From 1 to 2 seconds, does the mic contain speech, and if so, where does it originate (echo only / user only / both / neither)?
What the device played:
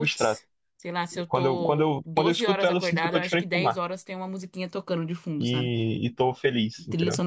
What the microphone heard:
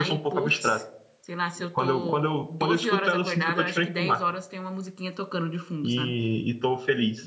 echo only